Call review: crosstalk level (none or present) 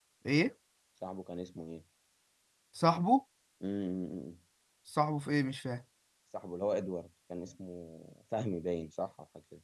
none